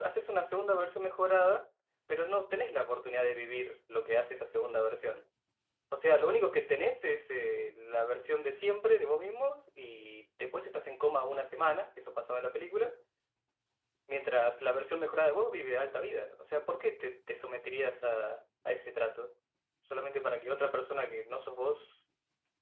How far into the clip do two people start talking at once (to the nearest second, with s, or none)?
none